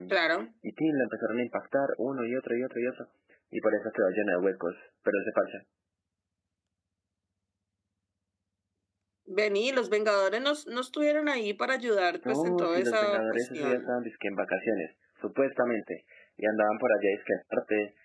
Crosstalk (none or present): present